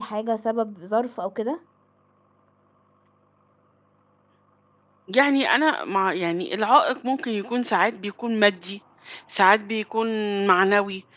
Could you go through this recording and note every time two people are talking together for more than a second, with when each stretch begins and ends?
none

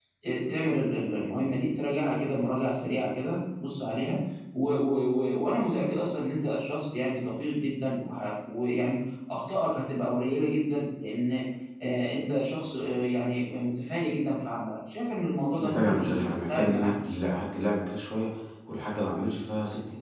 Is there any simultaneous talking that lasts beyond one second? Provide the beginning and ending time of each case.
15.6-16.9

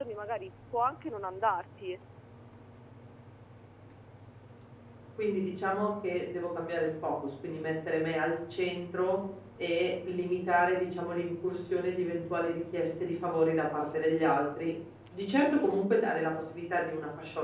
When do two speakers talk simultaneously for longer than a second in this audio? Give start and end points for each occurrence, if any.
none

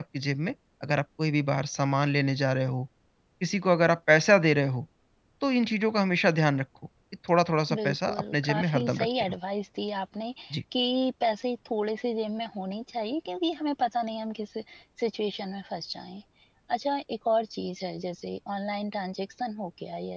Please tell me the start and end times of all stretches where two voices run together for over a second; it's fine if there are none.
7.7-9.4

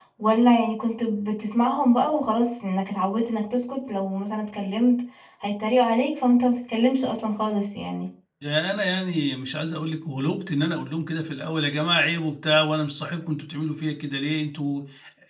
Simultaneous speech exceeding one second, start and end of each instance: none

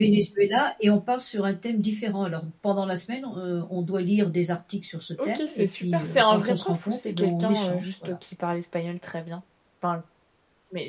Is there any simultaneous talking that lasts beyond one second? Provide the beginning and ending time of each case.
5.2-8.2

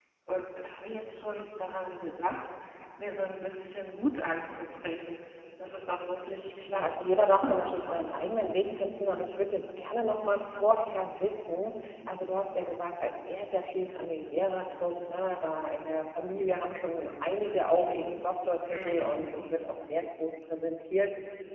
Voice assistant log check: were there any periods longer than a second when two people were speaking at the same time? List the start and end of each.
6.7-8.1

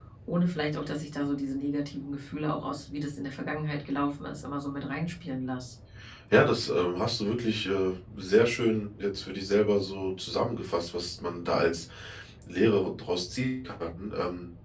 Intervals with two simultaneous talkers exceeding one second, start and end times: none

